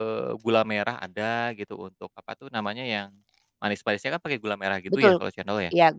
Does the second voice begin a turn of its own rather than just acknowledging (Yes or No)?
Yes